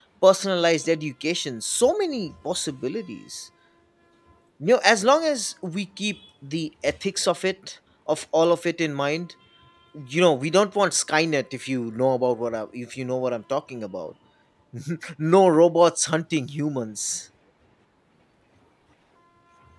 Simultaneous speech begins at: none

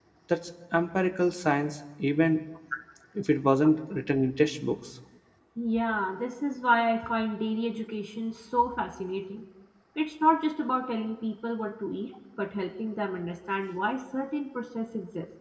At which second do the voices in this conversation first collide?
none

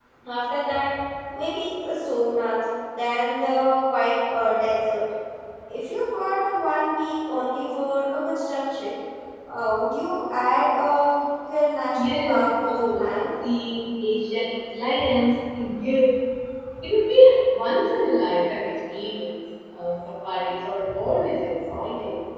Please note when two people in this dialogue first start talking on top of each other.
12 s

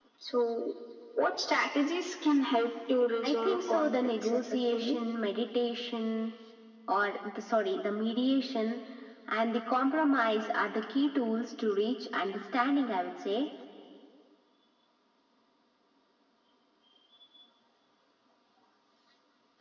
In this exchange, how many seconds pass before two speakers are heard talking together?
3 s

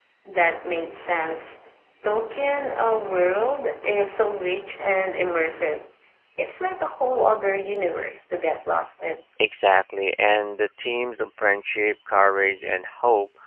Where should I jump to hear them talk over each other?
none

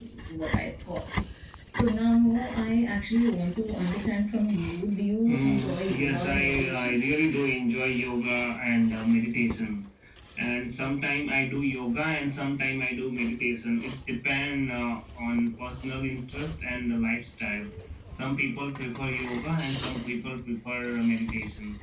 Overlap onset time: 5 s

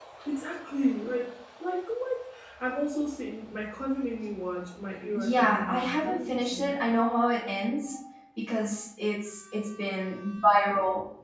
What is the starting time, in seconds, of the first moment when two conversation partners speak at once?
5 s

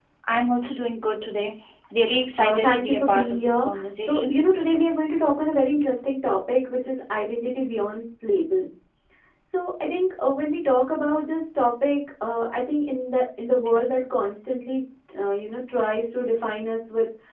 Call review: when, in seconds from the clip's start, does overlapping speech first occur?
2 s

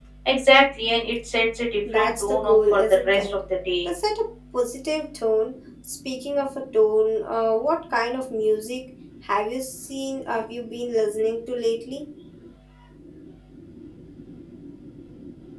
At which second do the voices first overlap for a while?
2 s

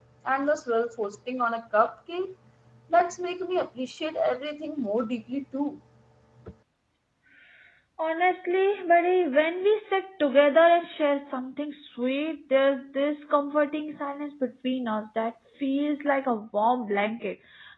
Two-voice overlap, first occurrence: none

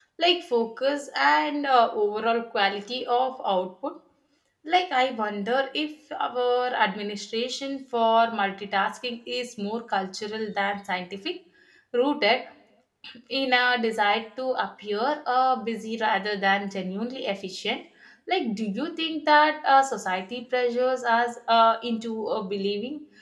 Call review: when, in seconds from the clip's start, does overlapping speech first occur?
none

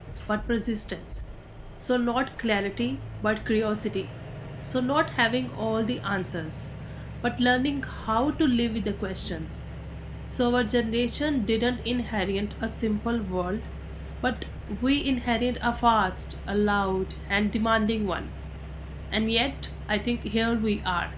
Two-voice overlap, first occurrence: none

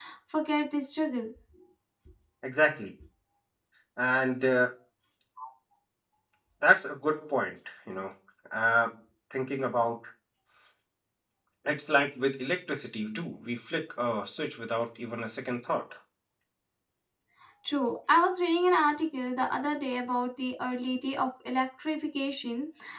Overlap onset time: none

